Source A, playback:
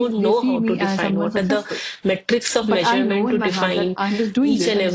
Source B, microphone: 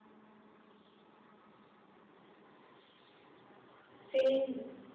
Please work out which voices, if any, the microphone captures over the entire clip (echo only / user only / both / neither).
user only